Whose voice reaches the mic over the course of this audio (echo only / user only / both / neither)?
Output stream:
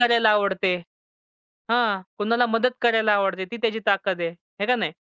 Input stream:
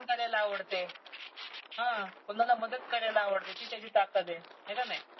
echo only